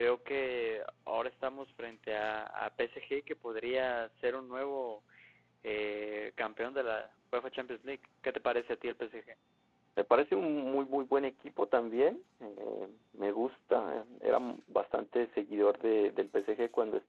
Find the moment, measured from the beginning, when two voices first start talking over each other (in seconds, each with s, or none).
none